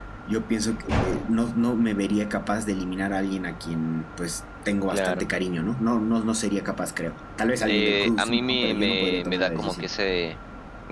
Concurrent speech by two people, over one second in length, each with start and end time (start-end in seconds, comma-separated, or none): 7.6-9.9